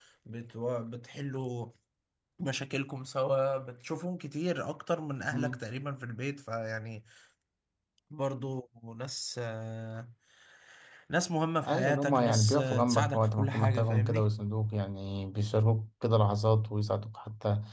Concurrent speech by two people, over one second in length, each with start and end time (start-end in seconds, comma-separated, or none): 11.6-14.2